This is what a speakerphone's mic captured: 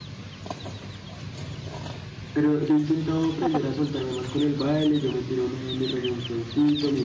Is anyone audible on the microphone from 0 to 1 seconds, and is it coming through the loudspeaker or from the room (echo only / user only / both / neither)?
neither